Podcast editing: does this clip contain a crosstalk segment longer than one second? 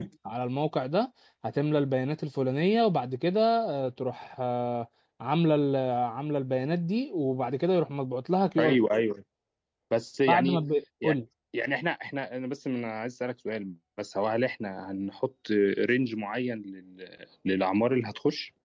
No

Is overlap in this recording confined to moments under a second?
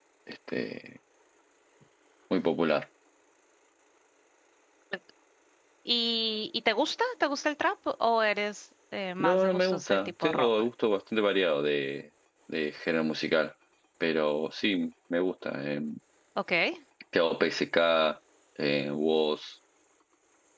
No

